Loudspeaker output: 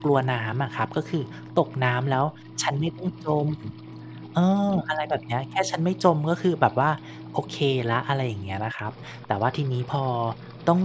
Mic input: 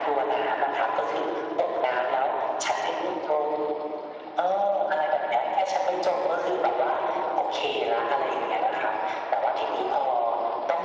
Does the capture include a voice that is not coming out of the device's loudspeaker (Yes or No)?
No